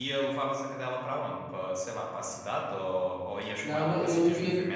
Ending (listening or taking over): taking over